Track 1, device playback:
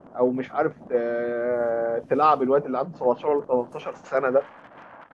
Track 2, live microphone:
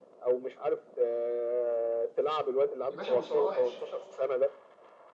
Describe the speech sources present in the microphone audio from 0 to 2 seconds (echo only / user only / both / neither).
echo only